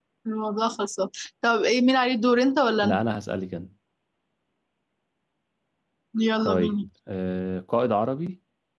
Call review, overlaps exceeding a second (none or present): none